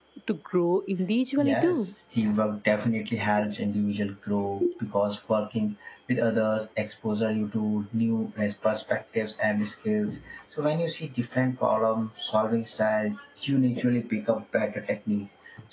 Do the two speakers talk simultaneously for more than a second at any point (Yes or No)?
No